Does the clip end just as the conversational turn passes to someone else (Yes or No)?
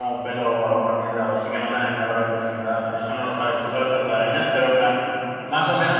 No